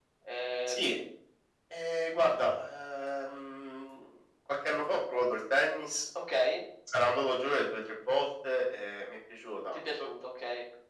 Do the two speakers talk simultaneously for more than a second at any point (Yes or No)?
No